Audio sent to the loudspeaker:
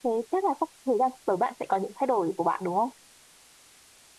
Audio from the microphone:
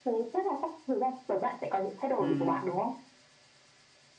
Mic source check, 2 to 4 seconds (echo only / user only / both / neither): both